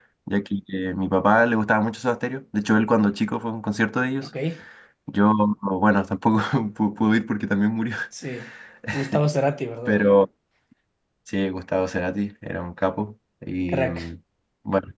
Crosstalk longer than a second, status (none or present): none